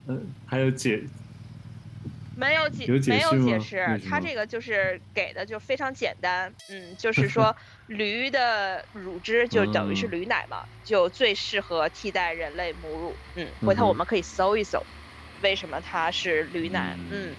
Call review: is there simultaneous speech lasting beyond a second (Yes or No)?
Yes